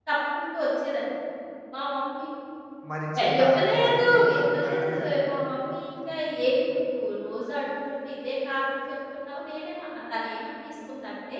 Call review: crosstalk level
present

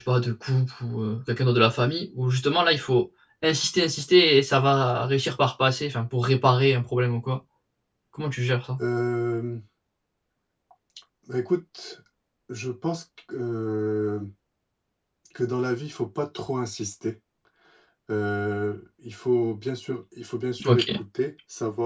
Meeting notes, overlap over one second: none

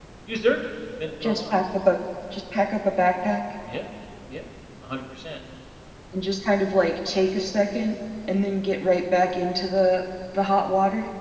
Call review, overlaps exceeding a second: none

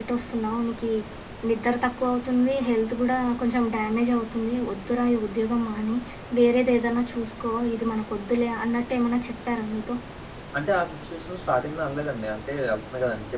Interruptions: none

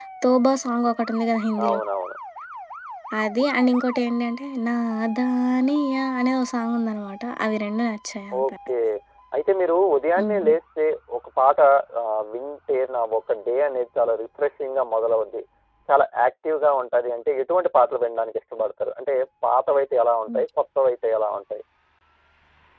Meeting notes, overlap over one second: none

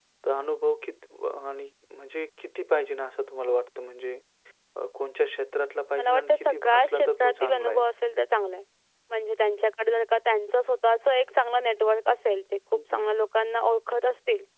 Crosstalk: present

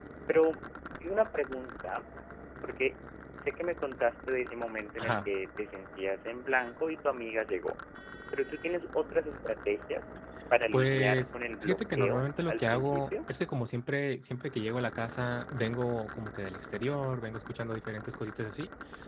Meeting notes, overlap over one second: present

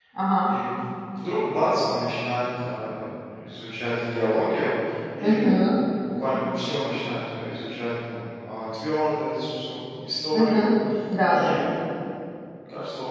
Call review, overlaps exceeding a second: none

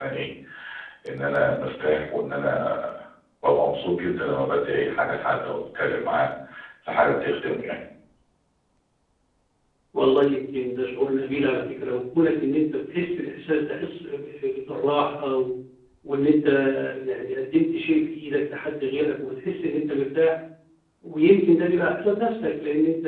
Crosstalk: none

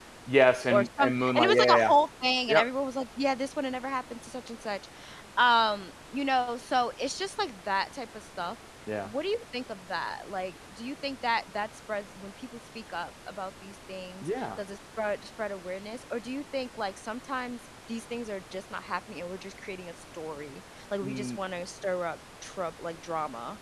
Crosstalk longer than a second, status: present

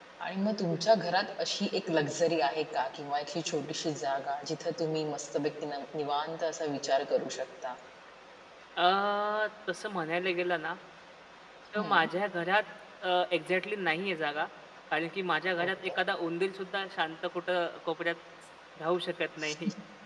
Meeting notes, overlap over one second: none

